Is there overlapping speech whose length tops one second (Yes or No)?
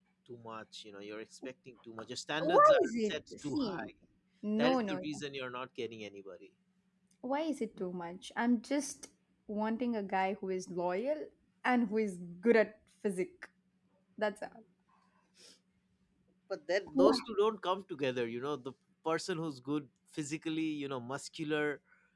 Yes